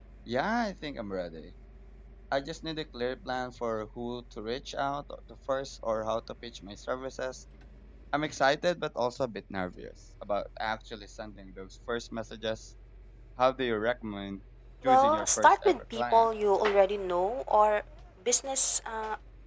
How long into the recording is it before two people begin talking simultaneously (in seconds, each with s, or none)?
14.8 s